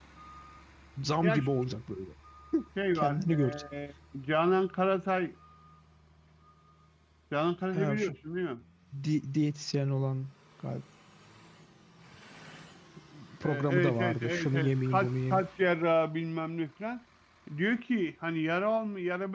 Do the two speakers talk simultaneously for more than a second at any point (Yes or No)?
Yes